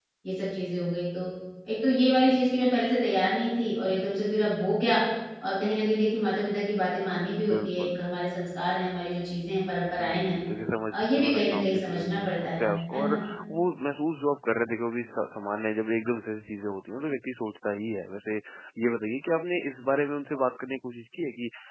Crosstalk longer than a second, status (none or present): present